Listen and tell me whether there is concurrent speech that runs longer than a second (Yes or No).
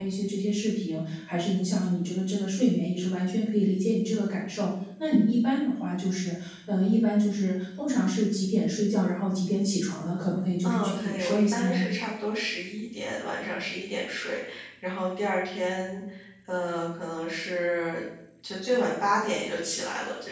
Yes